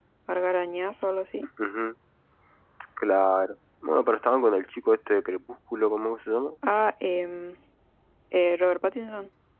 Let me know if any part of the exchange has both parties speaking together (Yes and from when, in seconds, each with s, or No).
No